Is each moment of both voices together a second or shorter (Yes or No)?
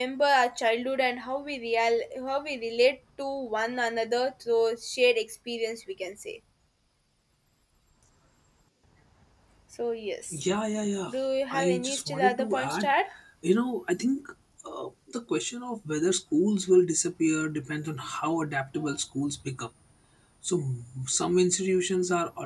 No